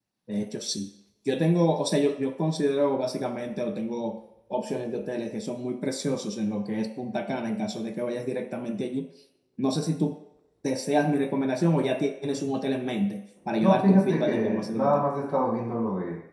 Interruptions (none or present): present